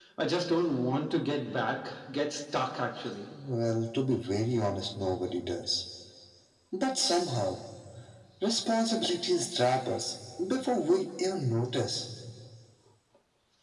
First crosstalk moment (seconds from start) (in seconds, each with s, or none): none